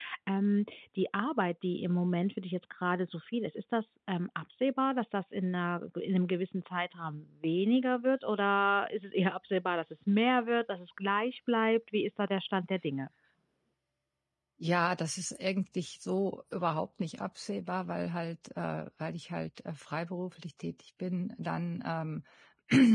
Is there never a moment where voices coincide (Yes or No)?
Yes